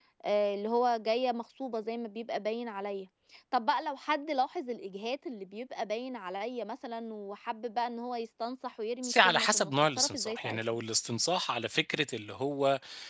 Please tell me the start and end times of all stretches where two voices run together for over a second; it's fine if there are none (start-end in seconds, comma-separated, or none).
9.0-10.6